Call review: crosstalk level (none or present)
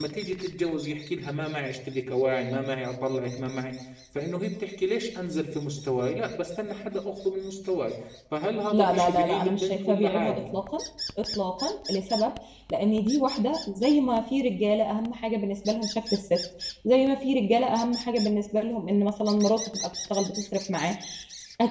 present